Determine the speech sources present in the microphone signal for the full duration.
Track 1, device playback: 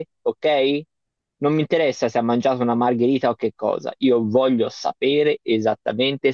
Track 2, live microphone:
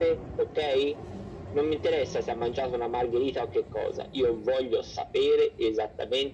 echo only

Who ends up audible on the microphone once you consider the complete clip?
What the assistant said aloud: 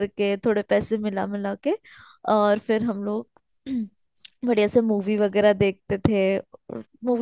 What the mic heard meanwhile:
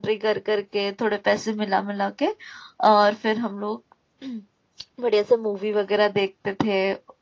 echo only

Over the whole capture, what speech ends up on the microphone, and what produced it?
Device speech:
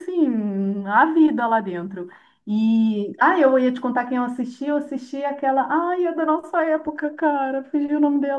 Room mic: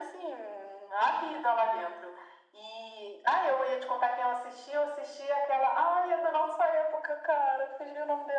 echo only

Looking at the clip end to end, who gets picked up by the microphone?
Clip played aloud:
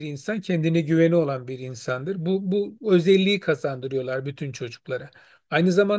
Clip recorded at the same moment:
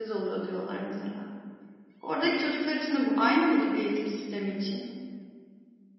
user only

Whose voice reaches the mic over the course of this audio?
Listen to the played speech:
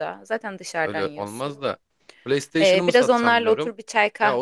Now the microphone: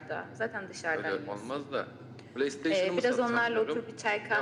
echo only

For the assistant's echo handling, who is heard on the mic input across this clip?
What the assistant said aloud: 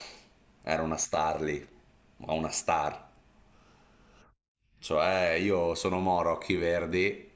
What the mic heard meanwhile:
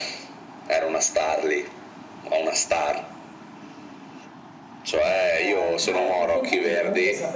both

